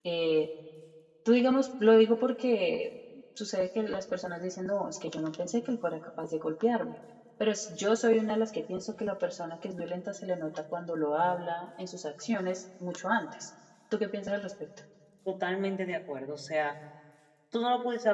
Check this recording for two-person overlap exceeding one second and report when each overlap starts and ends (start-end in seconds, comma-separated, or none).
none